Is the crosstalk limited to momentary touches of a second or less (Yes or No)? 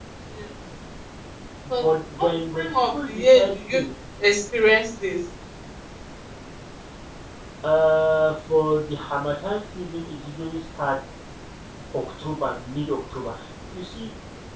No